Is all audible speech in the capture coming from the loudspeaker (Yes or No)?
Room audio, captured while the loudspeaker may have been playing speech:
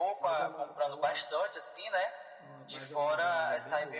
No